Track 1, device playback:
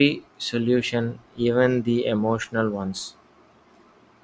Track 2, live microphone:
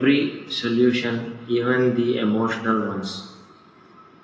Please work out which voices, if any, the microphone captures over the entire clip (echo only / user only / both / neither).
echo only